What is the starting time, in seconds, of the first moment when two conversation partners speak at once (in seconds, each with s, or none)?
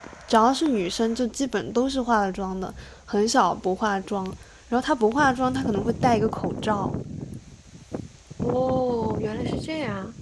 none